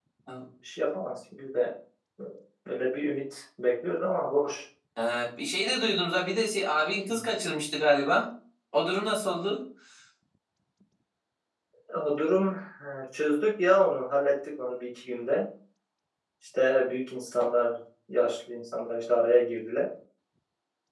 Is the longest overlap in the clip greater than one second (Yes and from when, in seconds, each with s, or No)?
No